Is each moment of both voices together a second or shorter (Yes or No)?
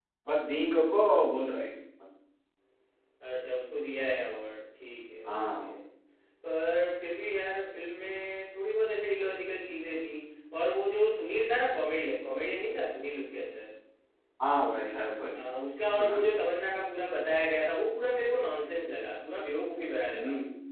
Yes